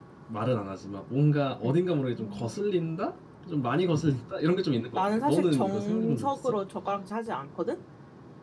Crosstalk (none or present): present